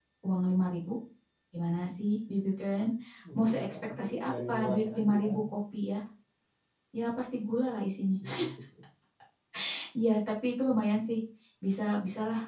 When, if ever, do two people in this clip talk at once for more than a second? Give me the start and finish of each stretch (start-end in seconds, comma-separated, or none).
3.5-5.2